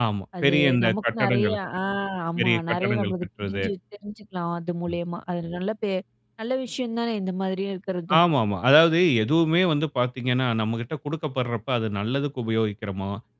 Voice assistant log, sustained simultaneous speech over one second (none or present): present